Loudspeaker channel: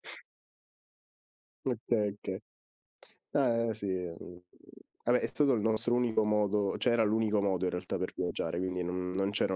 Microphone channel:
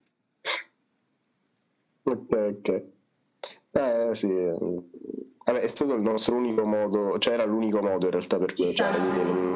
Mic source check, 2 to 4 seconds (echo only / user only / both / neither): echo only